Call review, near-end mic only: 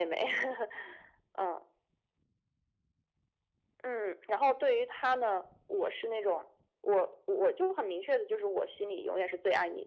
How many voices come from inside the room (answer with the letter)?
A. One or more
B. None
B